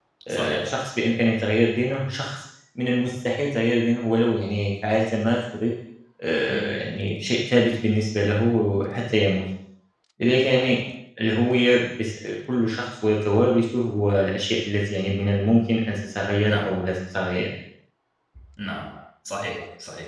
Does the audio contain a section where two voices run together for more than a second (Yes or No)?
No